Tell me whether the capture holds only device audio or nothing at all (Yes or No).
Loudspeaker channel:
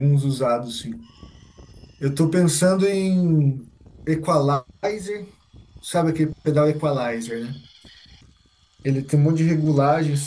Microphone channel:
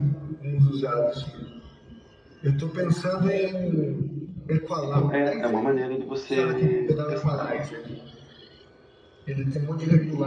No